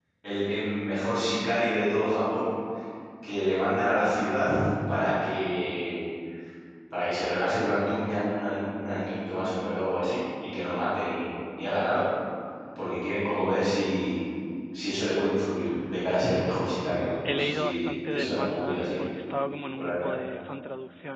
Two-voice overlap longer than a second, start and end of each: 17.3-19.0

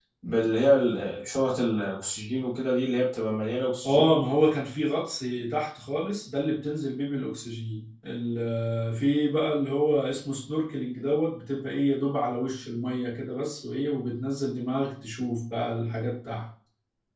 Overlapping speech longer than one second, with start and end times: none

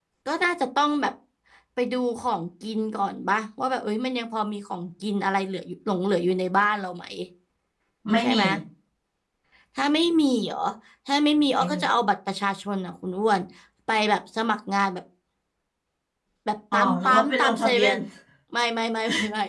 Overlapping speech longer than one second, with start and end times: 16.7-18.0

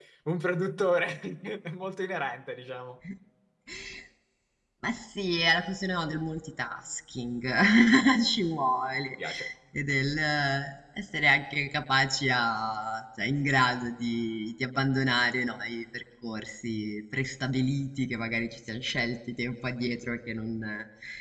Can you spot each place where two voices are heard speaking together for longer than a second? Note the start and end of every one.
none

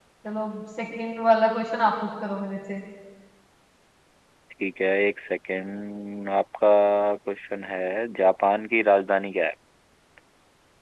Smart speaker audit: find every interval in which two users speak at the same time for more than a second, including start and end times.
none

